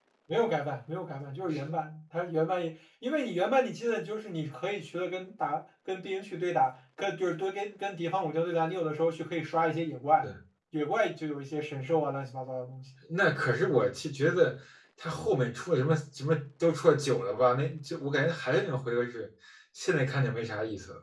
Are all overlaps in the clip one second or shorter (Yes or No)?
Yes